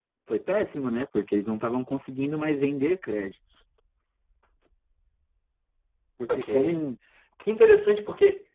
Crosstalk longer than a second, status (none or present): none